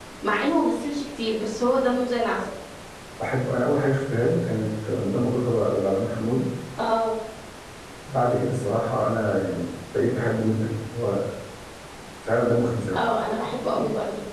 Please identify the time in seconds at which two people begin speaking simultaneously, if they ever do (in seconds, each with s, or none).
none